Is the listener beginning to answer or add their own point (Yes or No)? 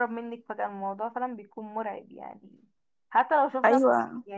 No